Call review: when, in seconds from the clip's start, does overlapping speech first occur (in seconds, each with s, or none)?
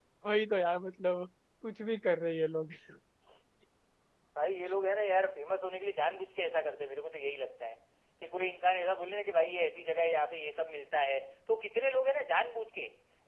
none